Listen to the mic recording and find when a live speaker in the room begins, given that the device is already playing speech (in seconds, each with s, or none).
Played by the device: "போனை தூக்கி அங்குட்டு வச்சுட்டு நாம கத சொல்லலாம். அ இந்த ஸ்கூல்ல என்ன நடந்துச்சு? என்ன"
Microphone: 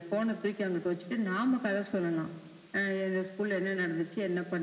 none